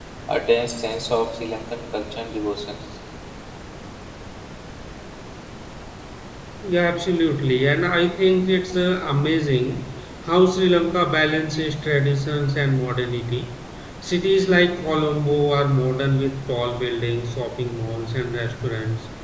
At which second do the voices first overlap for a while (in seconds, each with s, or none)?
none